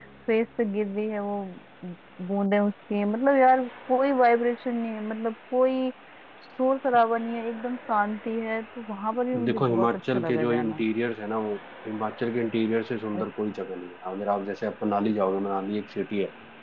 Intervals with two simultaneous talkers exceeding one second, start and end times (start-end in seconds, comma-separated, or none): 9.4-10.8